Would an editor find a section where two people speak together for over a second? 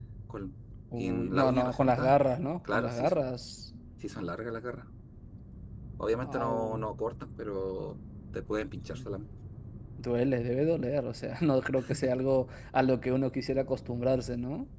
Yes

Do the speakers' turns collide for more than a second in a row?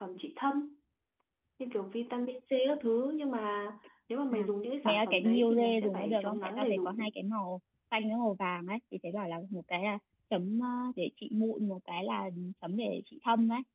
Yes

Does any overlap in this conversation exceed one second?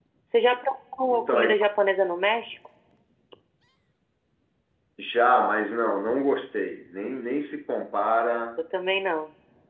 No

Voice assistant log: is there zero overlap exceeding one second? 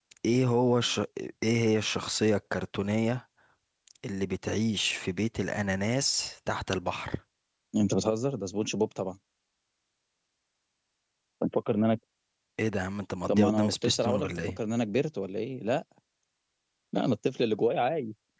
No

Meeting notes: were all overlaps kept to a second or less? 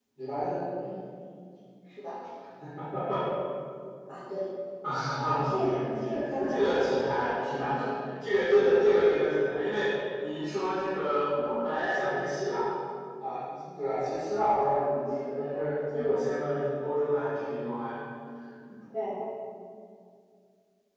No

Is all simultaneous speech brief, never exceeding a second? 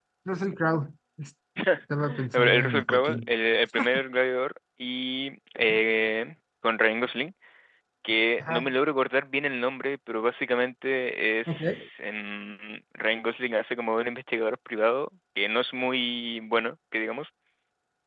No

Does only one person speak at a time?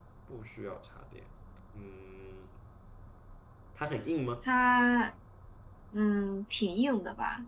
Yes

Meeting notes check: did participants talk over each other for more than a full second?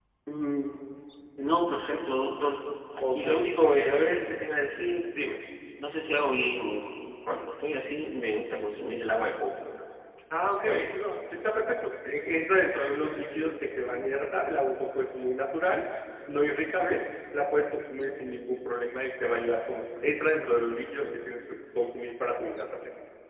No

